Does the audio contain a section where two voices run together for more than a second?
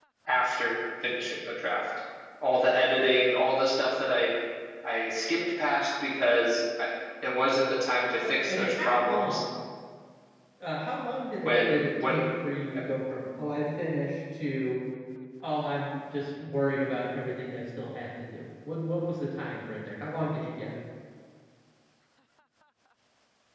Yes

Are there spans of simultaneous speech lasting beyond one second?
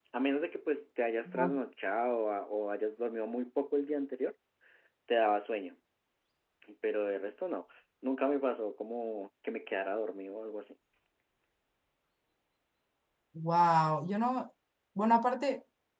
No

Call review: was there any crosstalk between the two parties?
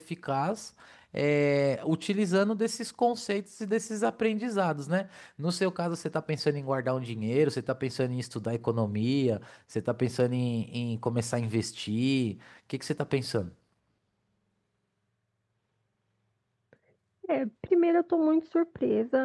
No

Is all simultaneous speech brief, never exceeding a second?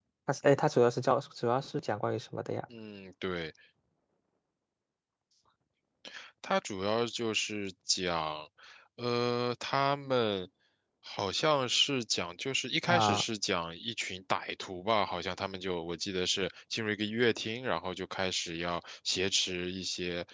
Yes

